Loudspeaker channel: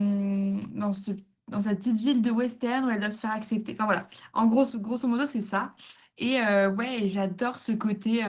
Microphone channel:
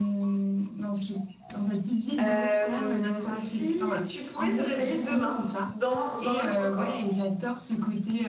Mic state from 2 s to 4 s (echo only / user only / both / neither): both